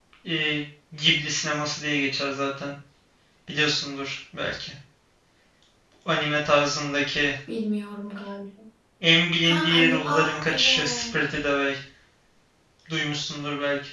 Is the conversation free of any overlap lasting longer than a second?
No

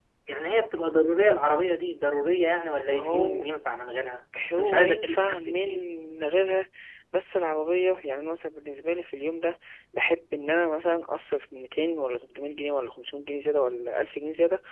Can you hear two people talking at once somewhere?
Yes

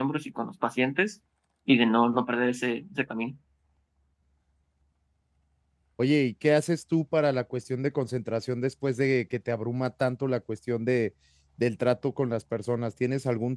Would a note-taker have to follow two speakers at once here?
No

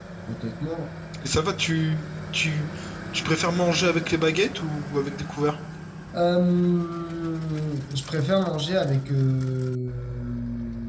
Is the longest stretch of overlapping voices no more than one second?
Yes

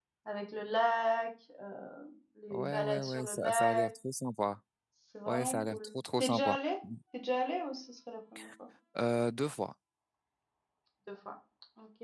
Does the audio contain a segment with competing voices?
Yes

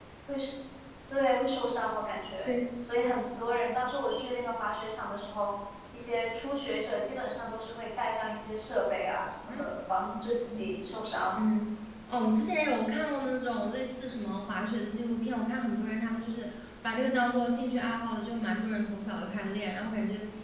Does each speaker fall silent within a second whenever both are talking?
Yes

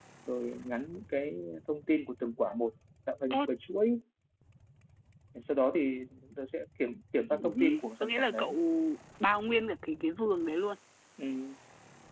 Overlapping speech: Yes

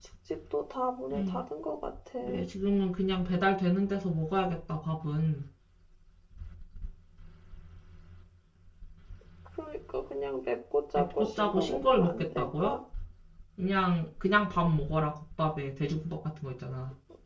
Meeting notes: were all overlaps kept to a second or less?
No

